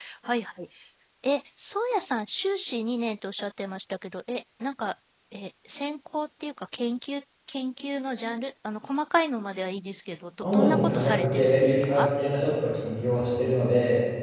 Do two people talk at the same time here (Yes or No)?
Yes